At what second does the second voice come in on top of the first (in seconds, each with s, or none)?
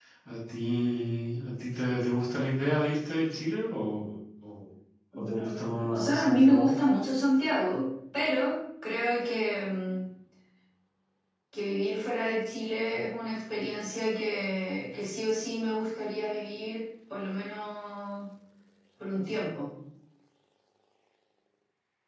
5.2 s